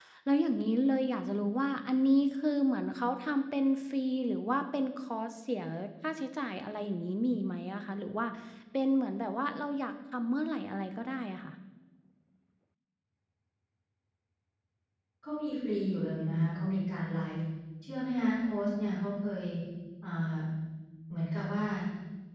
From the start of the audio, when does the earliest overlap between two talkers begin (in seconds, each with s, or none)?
none